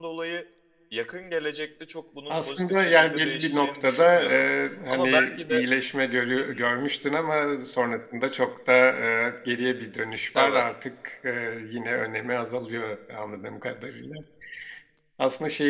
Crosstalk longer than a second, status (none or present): present